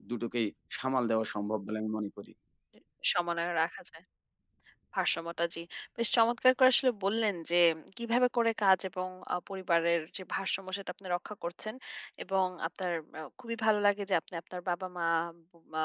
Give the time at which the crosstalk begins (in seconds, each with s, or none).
none